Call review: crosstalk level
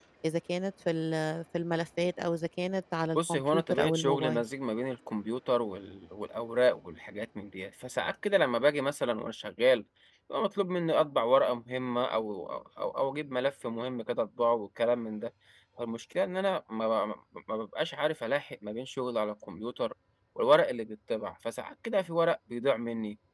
present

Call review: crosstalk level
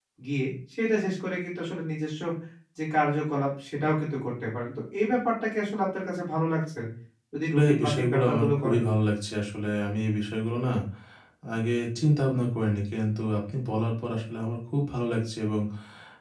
present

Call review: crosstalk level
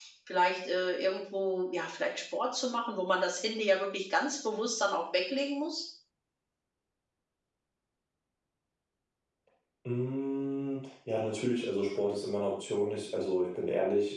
none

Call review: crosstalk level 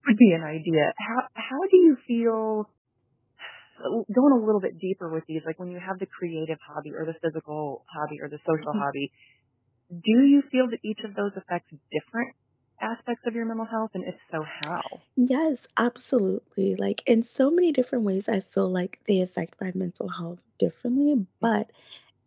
none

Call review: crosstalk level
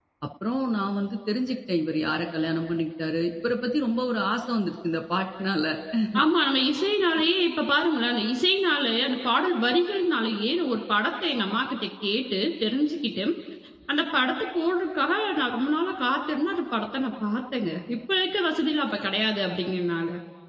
none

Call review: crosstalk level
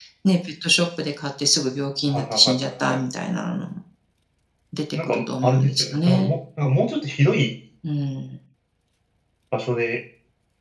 present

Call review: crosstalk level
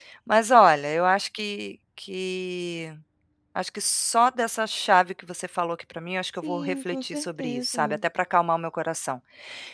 present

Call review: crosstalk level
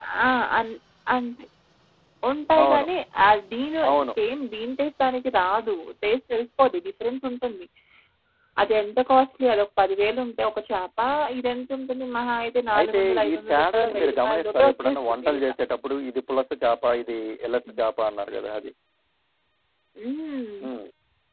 present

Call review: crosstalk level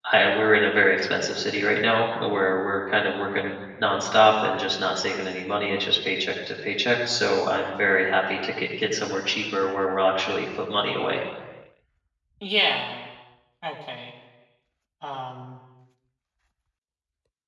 none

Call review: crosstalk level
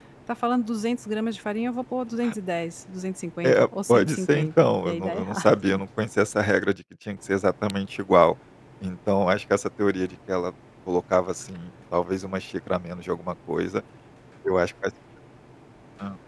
present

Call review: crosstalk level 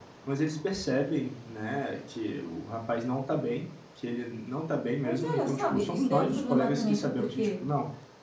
present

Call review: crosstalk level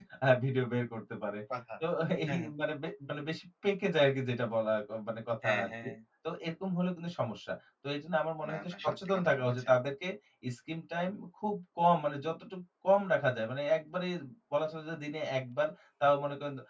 present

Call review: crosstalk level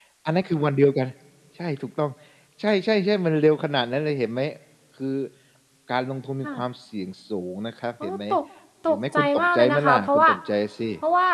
present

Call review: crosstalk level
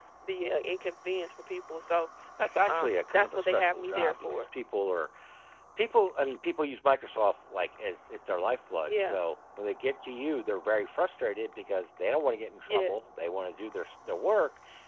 present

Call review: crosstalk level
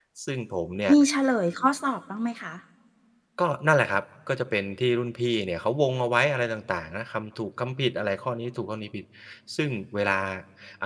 none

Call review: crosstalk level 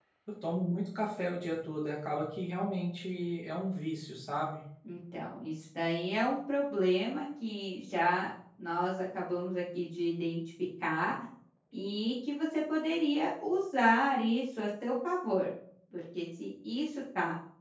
none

